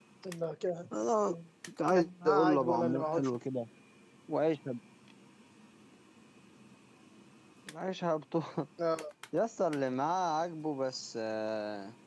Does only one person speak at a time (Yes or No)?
No